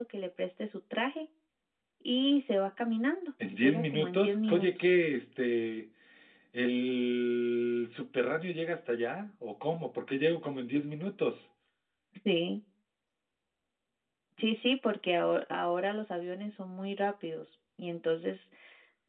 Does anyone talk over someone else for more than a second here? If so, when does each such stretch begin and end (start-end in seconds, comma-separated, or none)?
3.5-5.0